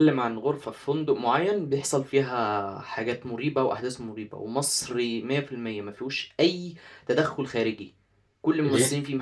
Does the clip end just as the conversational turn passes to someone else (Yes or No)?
No